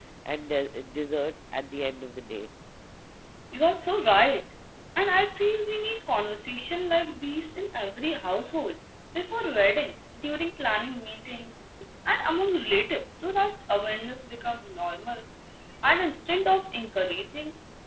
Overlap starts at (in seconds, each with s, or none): none